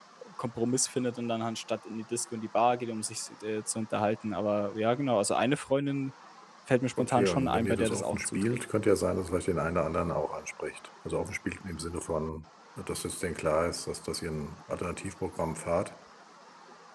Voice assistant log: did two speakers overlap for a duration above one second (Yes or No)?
Yes